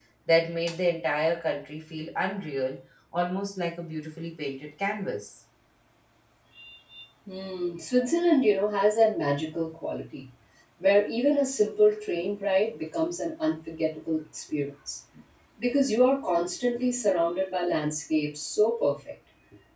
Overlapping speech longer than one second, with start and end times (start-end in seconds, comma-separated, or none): none